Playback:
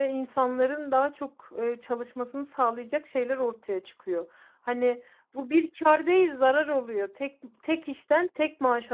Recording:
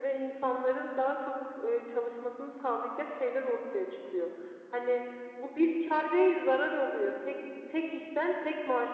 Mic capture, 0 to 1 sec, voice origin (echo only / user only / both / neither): echo only